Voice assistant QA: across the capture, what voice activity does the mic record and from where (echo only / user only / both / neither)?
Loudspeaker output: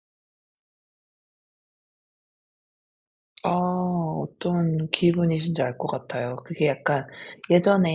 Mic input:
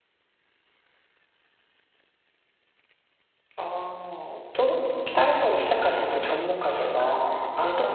both